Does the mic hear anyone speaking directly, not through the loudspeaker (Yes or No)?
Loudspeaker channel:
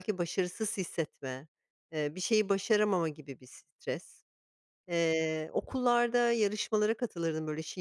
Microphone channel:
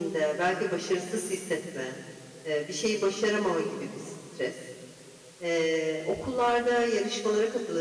No